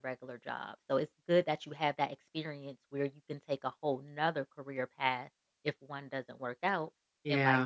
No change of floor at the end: Yes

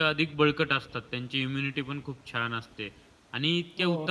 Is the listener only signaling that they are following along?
Yes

